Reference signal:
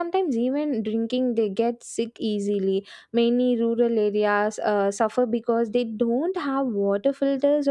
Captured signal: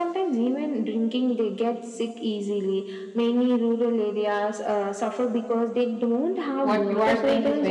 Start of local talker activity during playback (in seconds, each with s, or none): 6.6 s